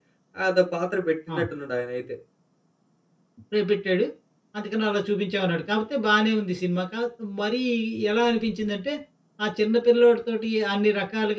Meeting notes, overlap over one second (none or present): none